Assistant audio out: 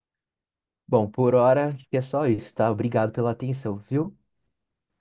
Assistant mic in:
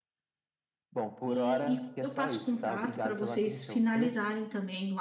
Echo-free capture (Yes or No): No